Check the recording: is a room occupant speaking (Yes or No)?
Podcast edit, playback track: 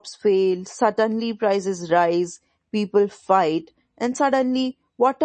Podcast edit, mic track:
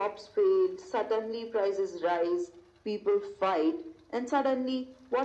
No